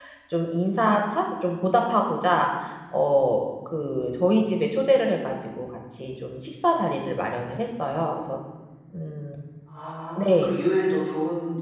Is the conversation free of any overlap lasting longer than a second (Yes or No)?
Yes